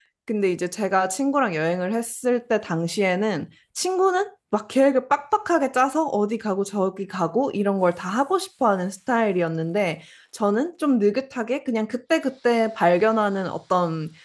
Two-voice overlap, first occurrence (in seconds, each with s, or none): none